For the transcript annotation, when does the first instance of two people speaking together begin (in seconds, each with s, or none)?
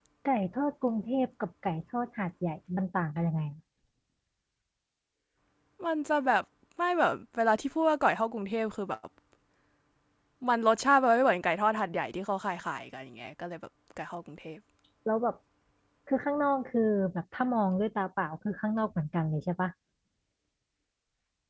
none